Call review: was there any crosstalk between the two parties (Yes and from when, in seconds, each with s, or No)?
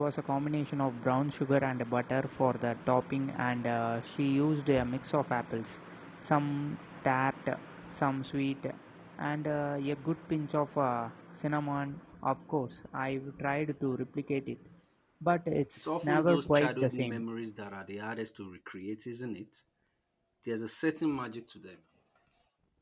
Yes, from 15.8 s